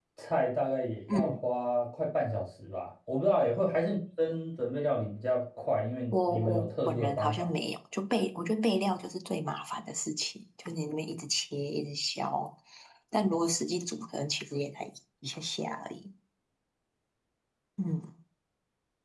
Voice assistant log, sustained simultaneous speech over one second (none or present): present